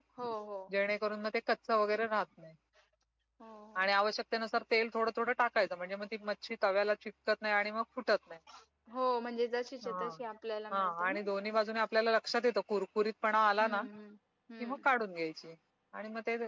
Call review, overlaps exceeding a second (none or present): none